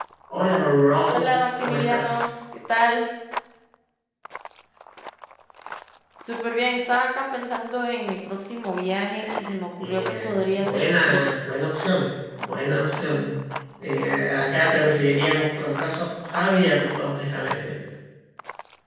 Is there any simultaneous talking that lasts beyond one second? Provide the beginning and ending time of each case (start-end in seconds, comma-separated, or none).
1.1-2.3, 9.8-11.3